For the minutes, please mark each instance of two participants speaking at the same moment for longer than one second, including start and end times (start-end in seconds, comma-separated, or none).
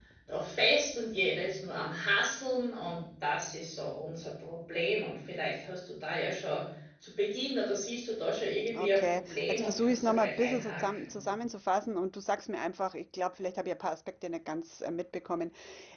8.8-11.2